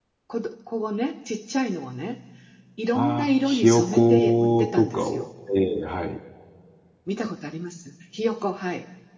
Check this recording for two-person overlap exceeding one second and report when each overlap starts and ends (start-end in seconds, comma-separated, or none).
2.9-5.2